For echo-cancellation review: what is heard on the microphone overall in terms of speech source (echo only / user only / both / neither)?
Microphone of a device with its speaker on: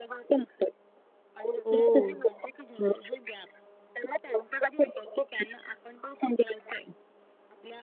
both